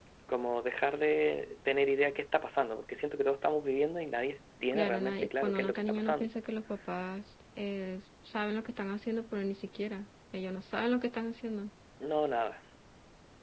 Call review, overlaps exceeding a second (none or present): present